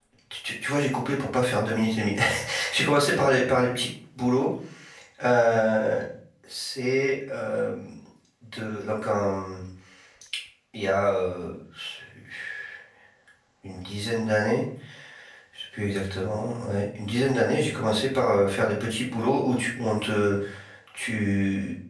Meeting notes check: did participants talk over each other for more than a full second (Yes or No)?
No